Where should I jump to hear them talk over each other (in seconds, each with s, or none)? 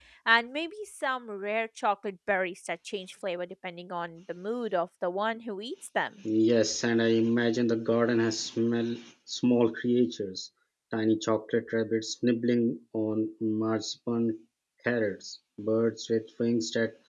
none